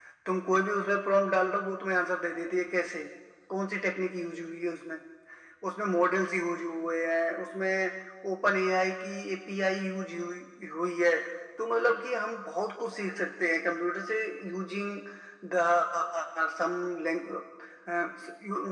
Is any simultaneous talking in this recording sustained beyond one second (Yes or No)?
No